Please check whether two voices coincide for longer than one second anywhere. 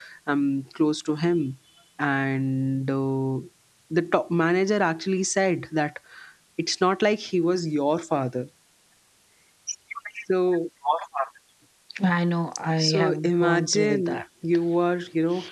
Yes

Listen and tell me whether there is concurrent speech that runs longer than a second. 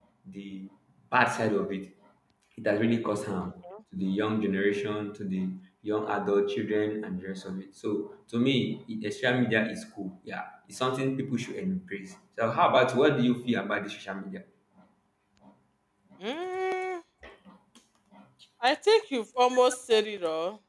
No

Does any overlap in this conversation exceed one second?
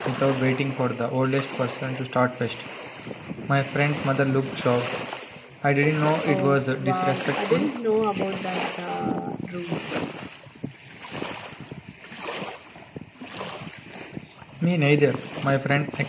Yes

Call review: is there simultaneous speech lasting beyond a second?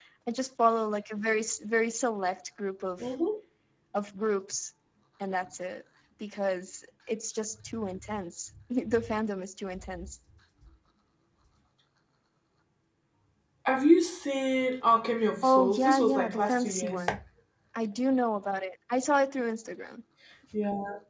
Yes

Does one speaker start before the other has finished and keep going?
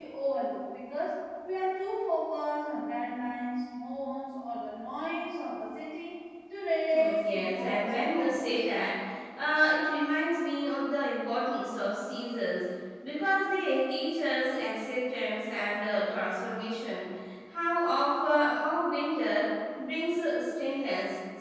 Yes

